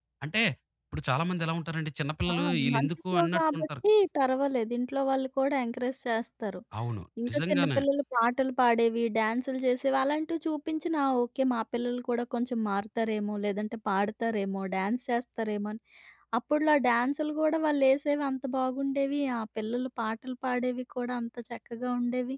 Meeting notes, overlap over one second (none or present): present